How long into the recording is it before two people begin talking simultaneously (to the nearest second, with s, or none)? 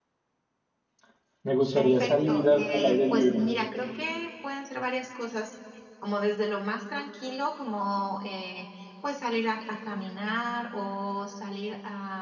2 s